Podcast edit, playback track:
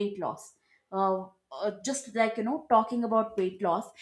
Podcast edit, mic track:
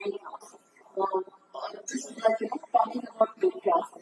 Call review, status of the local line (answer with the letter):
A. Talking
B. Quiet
B